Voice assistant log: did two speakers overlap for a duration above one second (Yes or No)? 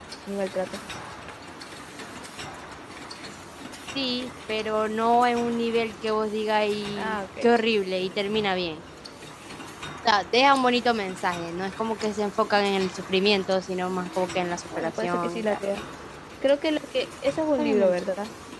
Yes